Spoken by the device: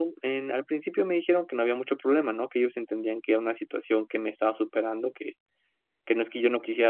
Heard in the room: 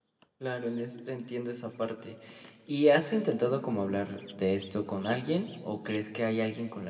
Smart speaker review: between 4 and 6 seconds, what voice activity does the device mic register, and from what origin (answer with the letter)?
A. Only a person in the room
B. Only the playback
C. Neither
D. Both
A